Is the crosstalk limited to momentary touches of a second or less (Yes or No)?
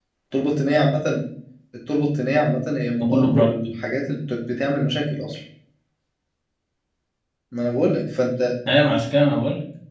Yes